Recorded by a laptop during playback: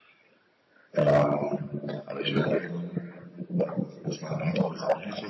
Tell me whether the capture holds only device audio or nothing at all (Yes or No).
Yes